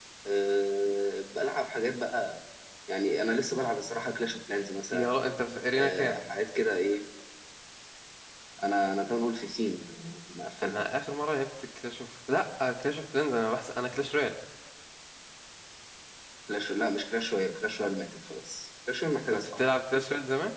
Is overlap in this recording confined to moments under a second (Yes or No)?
Yes